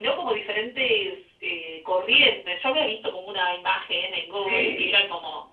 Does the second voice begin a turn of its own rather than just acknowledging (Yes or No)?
No